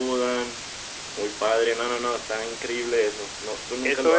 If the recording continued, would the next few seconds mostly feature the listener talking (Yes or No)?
Yes